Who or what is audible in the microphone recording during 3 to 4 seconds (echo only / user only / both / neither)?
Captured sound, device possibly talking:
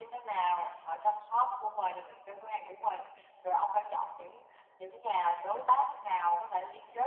echo only